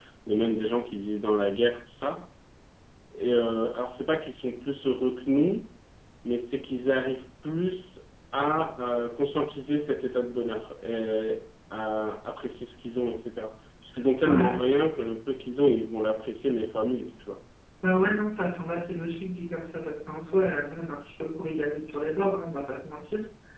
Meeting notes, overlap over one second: none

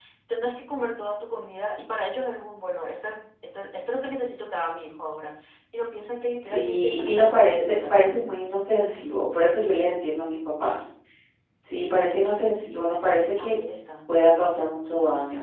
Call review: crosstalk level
present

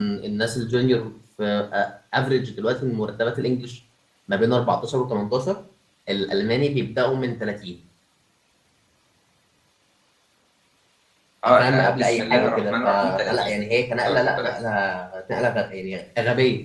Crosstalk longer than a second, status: present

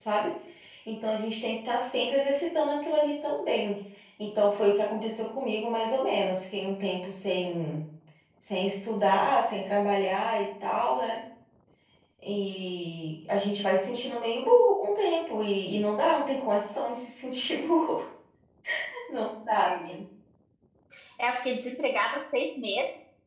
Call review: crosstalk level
none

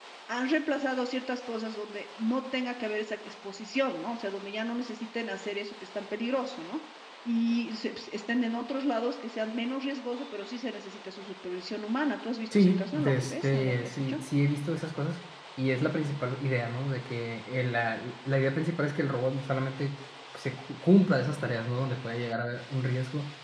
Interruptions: present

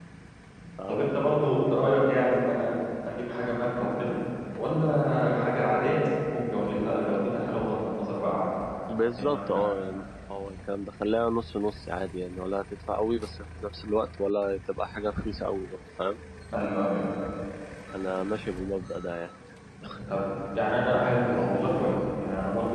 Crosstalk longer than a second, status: none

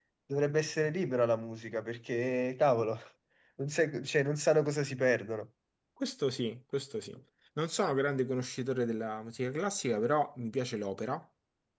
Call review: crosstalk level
none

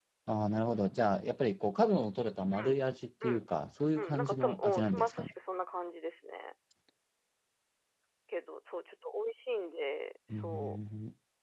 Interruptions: present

